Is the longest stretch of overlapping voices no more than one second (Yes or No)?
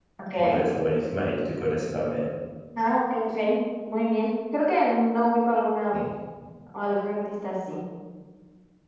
Yes